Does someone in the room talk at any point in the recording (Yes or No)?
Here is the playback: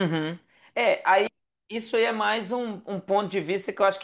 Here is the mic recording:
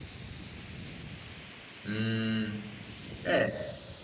Yes